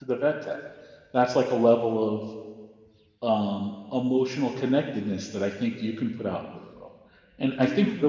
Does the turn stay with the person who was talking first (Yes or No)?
Yes